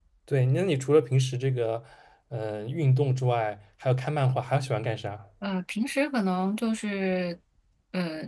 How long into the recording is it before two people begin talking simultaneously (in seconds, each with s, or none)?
none